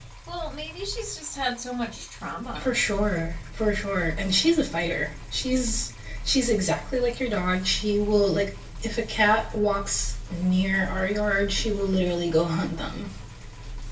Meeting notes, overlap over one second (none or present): none